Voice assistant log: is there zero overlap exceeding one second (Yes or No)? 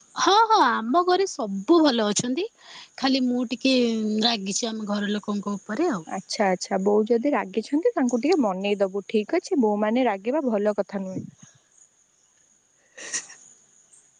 Yes